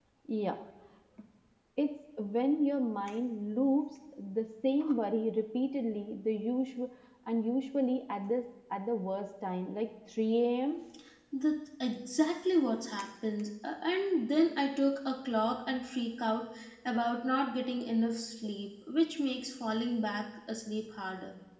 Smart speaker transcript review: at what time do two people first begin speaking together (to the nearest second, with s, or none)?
none